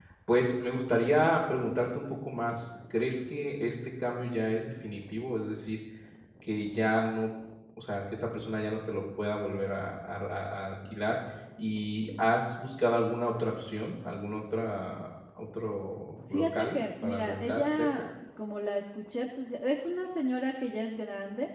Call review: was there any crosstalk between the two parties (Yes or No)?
Yes